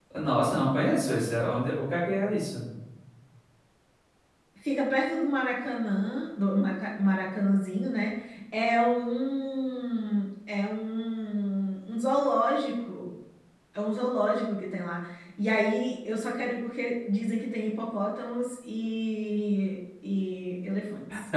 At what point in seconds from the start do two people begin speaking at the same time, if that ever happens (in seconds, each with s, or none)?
none